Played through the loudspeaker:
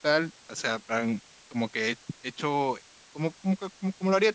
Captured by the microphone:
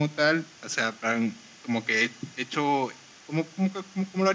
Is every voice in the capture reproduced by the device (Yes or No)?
Yes